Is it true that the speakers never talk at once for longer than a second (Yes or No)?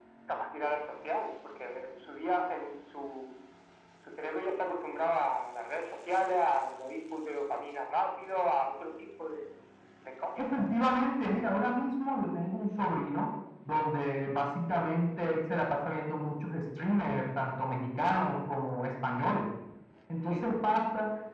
Yes